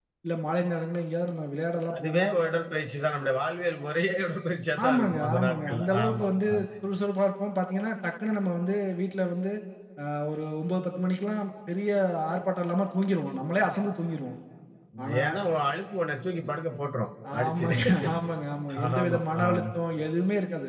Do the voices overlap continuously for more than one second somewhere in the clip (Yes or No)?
Yes